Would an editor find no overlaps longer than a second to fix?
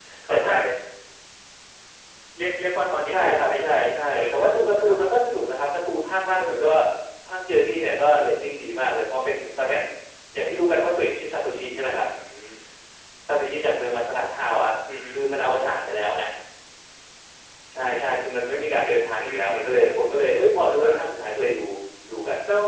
No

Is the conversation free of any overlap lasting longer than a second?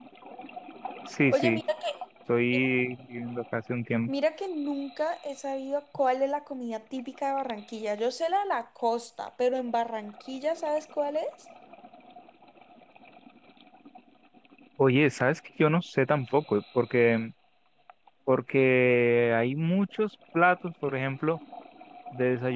Yes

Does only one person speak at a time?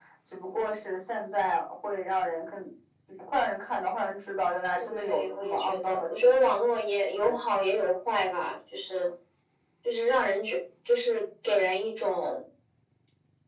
No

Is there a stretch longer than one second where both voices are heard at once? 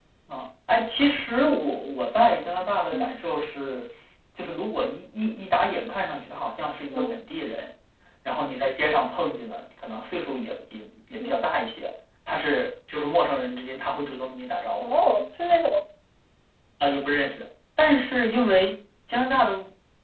No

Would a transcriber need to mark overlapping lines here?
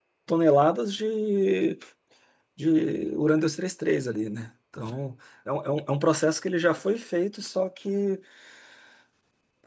No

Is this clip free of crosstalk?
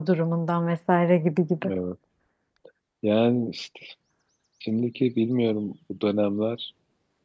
Yes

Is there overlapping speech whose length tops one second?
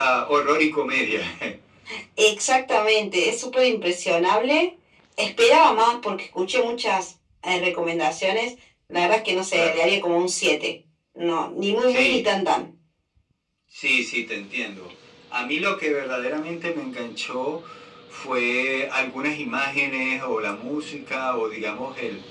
No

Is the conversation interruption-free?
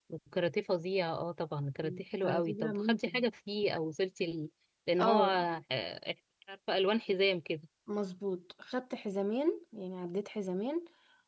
No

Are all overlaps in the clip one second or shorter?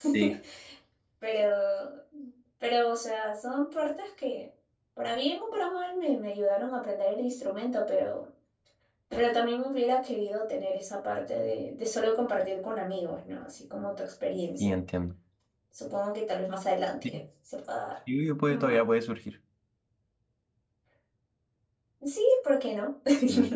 Yes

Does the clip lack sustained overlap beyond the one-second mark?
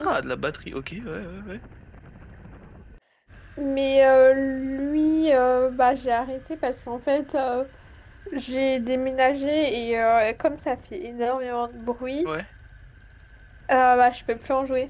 Yes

